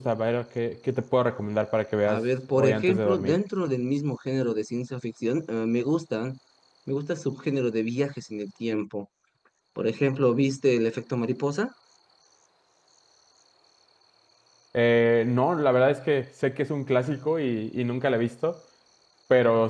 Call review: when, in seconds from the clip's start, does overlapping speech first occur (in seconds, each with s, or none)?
2.1 s